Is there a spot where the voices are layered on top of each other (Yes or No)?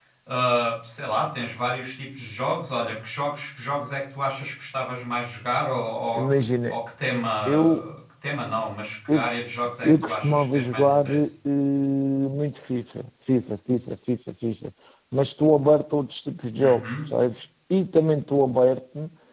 Yes